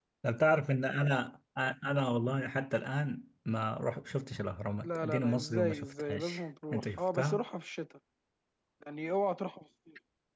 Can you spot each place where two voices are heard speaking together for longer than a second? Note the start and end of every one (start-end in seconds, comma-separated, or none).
4.8-7.4